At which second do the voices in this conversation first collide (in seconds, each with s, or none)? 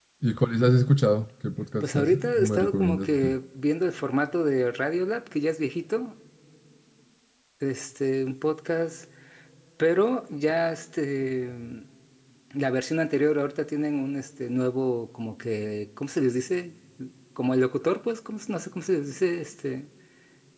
1.8 s